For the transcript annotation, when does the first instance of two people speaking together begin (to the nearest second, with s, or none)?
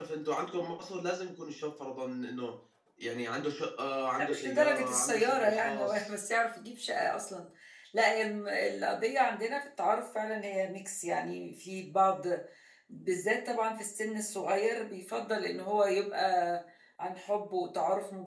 4 s